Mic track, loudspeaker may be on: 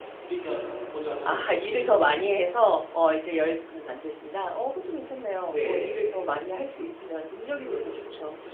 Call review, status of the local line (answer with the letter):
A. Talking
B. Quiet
A